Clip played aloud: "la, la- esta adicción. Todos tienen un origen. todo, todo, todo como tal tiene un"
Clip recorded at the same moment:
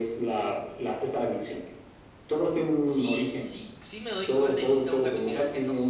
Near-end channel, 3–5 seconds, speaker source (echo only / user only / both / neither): both